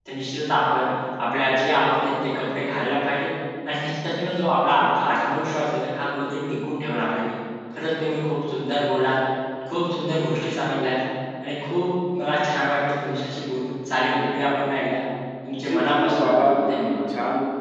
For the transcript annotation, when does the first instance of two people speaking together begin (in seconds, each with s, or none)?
15.5 s